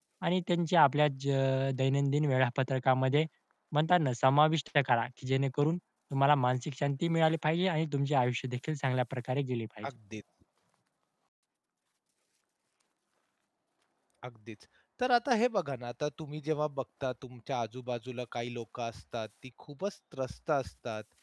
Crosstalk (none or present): none